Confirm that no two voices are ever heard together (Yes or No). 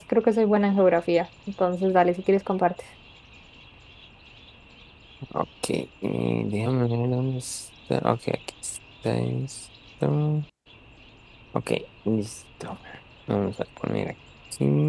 Yes